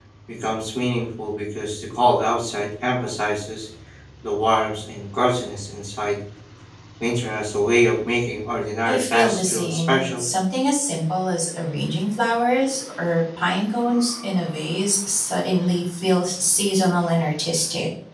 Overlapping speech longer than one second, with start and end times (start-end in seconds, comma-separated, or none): 8.8-10.2